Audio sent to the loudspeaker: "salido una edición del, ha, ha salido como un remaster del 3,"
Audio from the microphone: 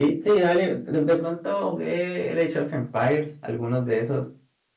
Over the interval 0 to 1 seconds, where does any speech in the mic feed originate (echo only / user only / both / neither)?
user only